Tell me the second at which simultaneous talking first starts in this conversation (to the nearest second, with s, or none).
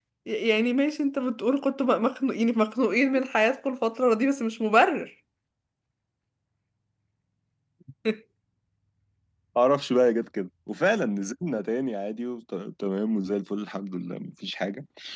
none